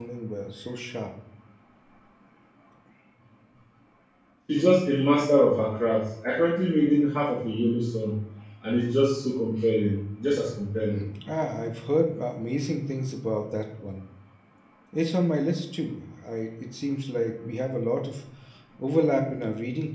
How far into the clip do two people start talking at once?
none

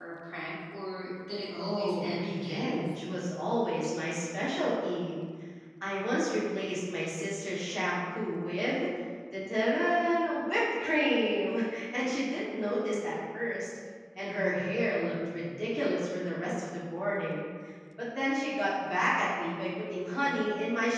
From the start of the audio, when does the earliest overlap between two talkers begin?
2 s

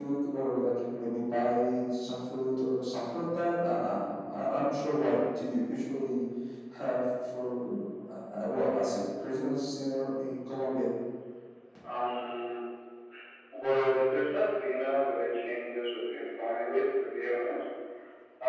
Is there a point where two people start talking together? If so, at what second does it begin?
none

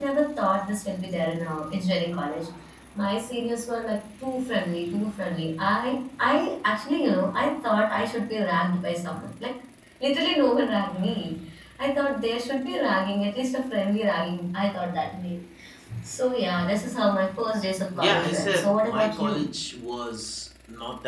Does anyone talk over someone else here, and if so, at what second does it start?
18 s

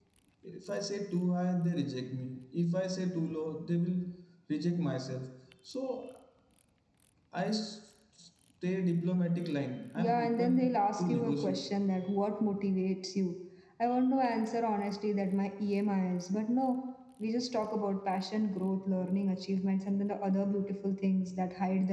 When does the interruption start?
10 s

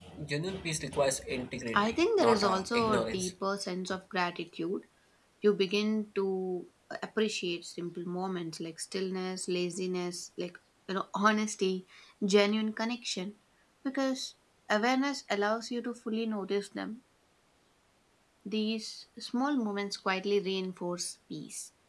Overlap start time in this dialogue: 2 s

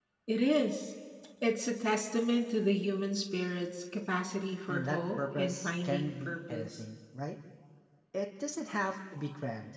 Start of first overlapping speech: 5 s

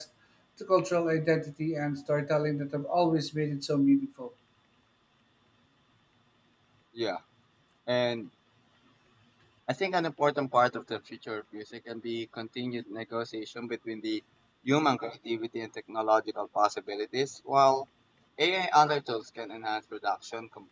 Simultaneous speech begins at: none

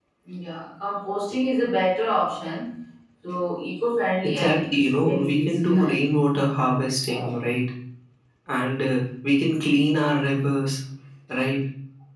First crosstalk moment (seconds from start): 4 s

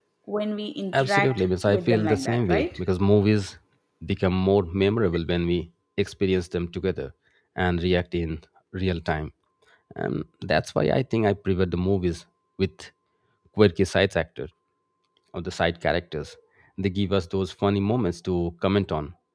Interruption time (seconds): 1 s

